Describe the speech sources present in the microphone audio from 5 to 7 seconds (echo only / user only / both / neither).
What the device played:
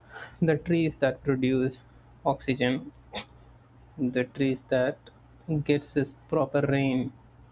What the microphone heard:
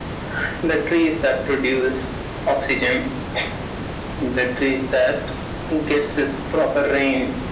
echo only